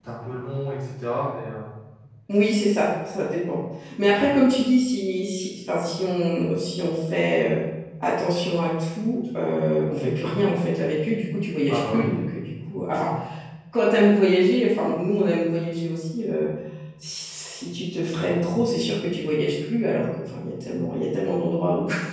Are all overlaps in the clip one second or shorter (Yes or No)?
Yes